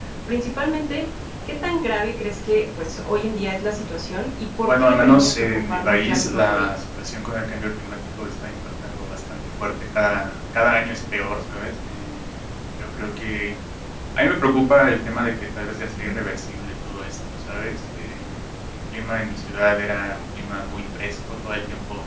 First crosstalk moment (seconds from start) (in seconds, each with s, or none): 4.6 s